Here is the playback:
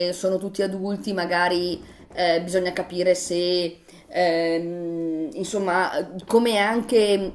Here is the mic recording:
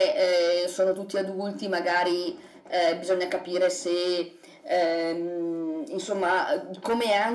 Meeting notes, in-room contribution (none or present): none